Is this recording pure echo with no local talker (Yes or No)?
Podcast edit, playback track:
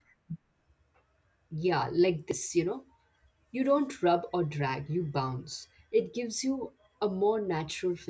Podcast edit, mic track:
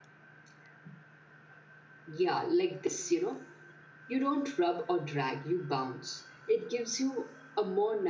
Yes